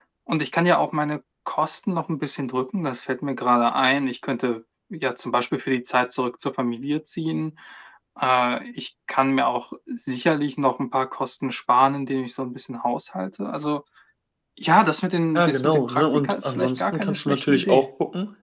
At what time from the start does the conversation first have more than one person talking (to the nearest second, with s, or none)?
15 s